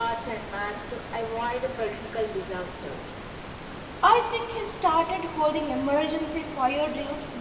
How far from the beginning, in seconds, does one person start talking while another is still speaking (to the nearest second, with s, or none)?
none